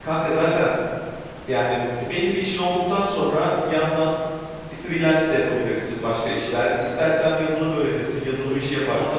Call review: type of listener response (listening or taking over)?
taking over